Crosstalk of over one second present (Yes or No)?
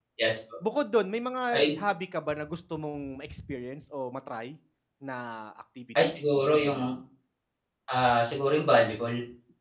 No